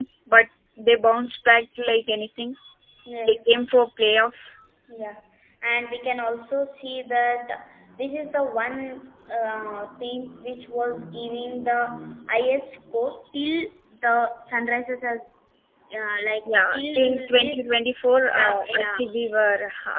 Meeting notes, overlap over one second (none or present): present